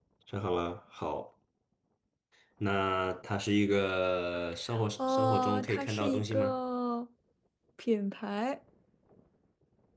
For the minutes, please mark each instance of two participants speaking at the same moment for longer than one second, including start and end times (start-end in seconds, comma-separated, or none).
5.1-6.6